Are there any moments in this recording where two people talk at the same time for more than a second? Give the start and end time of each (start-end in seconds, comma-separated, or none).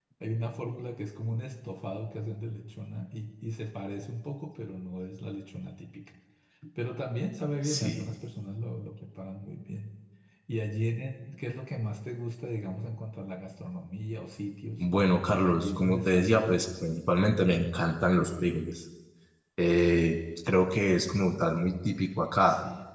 15.4-16.6